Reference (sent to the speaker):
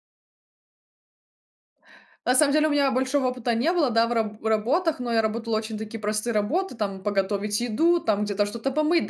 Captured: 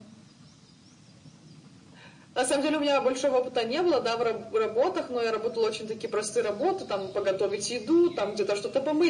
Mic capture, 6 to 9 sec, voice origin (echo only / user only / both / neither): echo only